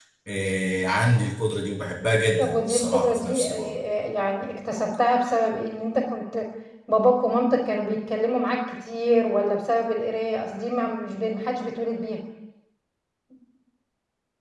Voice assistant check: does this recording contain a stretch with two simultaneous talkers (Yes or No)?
Yes